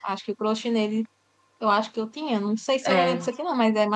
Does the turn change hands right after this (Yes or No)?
No